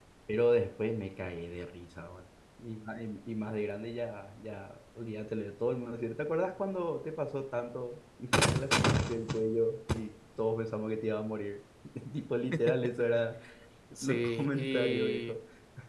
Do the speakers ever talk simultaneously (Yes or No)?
Yes